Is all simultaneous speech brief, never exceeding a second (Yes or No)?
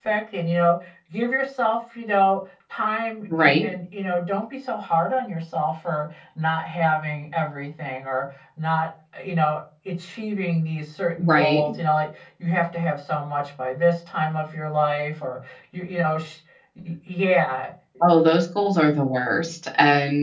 Yes